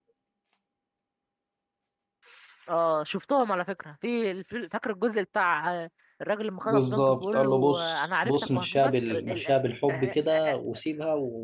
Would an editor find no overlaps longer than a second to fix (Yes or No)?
No